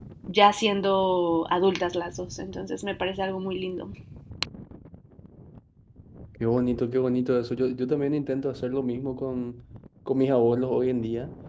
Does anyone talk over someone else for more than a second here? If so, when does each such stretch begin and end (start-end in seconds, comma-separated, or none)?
none